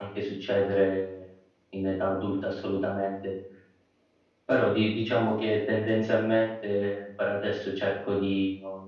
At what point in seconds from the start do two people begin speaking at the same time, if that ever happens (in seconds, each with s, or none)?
none